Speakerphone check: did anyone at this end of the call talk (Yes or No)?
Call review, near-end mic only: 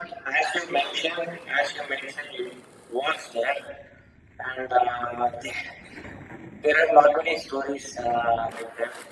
No